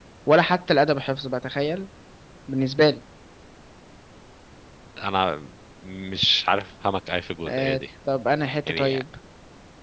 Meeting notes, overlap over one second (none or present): none